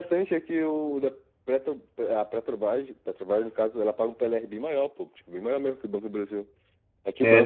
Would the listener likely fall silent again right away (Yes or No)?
Yes